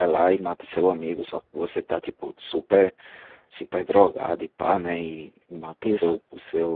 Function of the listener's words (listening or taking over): listening